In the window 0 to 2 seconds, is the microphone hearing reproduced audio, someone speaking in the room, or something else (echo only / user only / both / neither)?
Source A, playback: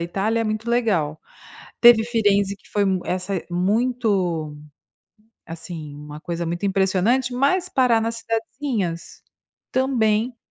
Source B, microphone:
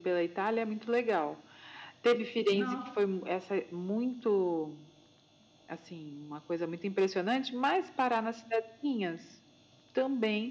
echo only